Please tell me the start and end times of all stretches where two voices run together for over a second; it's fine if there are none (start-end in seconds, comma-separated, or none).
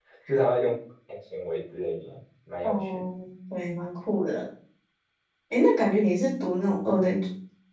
none